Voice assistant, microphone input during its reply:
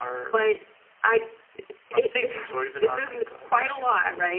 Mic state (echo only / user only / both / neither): echo only